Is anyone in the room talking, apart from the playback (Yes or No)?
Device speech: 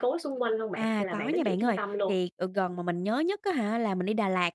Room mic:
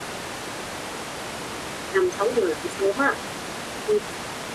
Yes